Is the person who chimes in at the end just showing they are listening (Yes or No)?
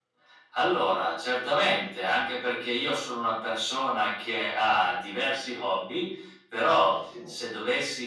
Yes